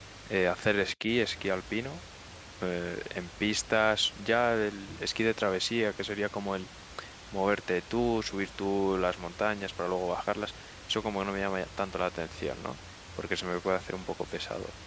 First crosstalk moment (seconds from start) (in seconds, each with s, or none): none